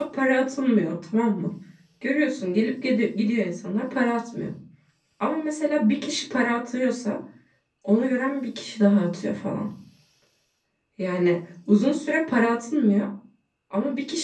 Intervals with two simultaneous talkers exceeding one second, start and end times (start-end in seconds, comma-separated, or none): none